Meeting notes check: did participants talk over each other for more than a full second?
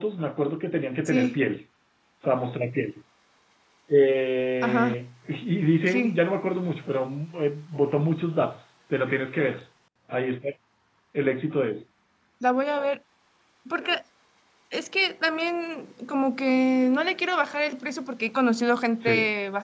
No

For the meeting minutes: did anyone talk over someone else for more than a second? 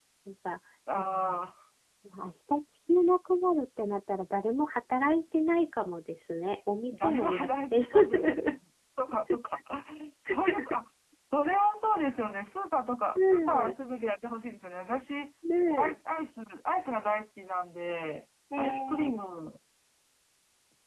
Yes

